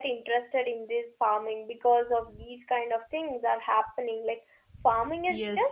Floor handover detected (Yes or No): Yes